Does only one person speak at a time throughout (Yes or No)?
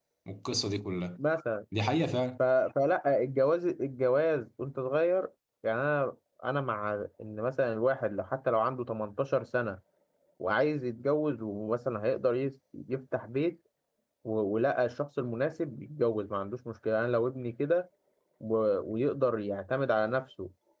Yes